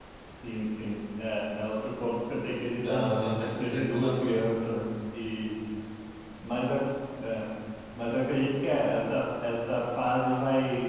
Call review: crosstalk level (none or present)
present